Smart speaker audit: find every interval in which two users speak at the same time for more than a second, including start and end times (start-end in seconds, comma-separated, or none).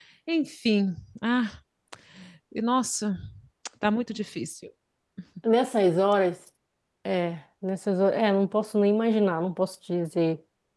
none